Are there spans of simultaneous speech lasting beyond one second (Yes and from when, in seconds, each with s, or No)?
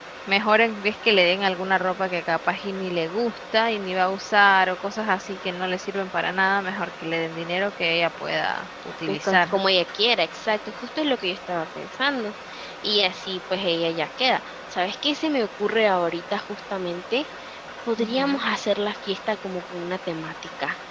No